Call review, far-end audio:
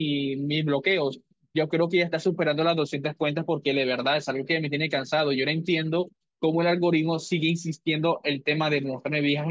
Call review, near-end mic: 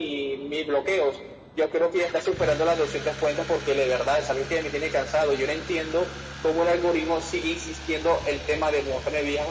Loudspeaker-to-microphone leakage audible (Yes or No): Yes